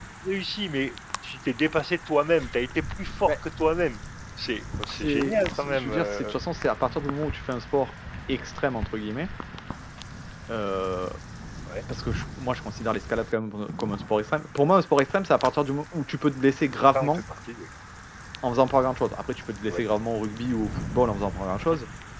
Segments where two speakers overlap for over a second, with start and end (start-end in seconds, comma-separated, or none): 4.9-6.4